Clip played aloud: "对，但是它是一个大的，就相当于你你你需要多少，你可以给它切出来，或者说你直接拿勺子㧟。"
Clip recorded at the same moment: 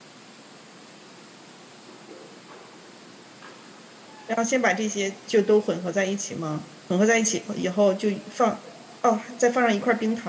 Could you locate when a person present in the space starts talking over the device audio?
4.3 s

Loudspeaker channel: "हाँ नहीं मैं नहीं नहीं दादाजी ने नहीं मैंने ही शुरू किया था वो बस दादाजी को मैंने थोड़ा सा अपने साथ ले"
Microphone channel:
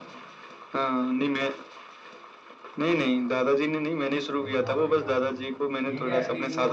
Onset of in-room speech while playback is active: 4.4 s

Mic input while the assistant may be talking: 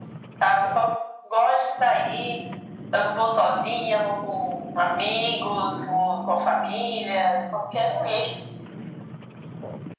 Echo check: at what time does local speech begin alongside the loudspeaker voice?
none

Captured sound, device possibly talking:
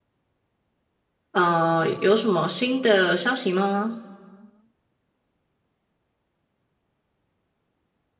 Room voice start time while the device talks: 1.3 s

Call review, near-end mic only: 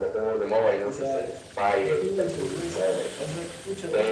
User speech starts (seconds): 0.8 s

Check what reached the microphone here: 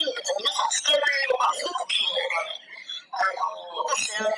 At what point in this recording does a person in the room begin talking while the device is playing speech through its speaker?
none

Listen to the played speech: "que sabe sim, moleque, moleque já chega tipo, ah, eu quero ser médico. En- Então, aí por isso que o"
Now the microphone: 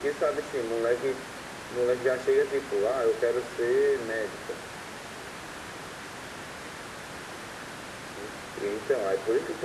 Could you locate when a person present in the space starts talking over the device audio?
none

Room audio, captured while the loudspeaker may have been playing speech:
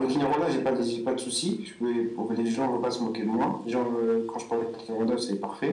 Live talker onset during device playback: none

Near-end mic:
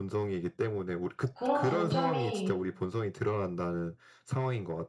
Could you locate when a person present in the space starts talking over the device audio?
1.3 s

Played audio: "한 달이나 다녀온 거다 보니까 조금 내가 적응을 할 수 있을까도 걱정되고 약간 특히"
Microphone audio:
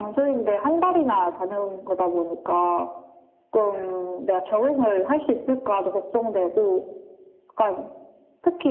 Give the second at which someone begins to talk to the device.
none

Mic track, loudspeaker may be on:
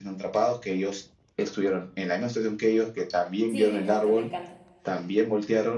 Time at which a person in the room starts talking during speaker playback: 3.5 s

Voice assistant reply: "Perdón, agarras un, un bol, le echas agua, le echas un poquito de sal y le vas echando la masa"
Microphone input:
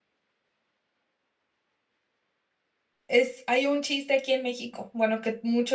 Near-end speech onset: 3.1 s

